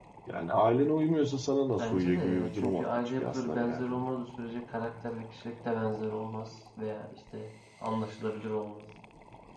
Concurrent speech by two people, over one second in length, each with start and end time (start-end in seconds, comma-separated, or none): 1.8-4.1